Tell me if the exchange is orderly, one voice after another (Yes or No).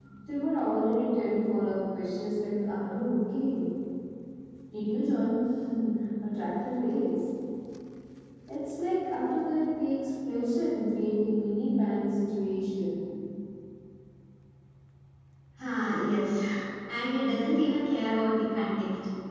Yes